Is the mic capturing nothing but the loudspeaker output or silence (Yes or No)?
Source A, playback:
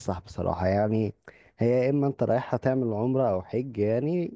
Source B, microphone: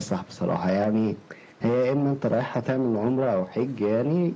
Yes